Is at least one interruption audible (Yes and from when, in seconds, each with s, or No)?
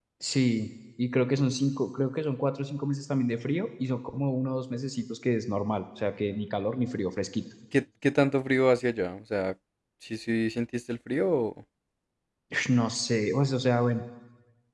No